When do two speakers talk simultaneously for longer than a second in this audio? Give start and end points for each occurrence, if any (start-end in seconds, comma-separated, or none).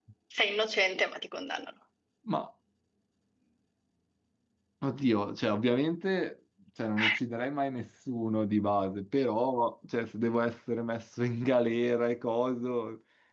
none